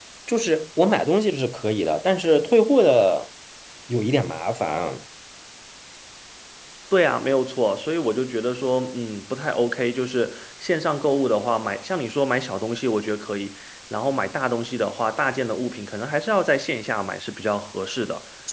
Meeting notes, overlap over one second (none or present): none